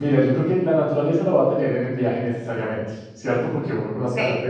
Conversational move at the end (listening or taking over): listening